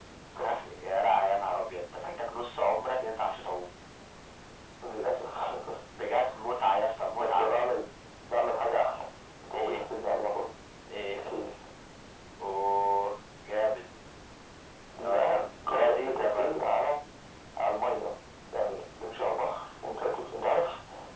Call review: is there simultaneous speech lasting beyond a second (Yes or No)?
Yes